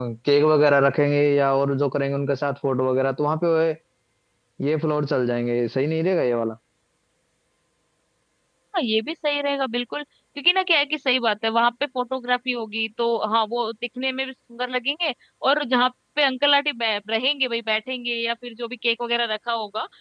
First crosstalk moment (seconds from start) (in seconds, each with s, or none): none